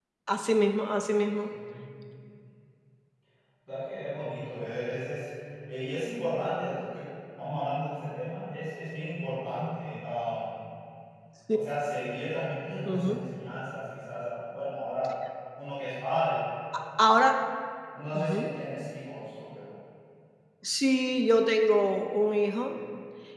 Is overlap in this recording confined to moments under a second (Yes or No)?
Yes